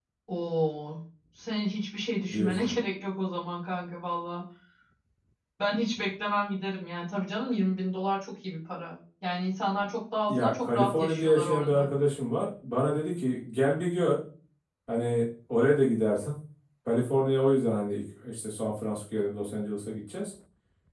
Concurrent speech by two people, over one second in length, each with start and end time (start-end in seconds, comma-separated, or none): 10.3-11.9